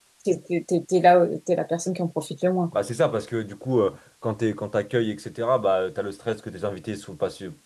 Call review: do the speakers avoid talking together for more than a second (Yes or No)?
Yes